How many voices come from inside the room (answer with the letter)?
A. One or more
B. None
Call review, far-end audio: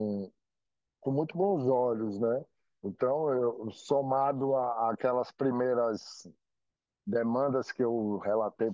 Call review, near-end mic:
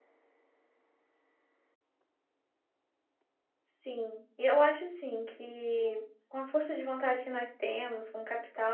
A